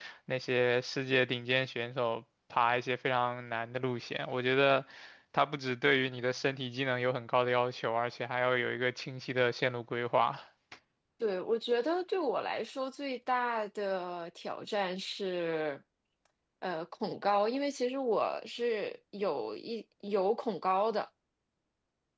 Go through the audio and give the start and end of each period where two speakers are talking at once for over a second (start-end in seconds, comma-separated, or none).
none